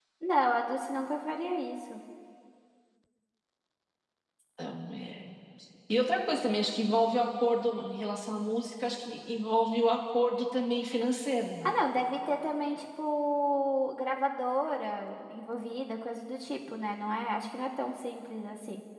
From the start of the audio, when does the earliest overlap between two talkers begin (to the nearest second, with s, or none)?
none